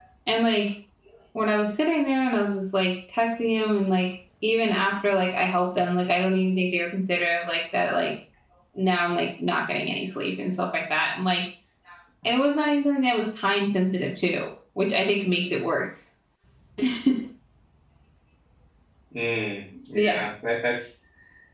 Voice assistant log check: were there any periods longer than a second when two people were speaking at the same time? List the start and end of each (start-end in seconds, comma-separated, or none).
none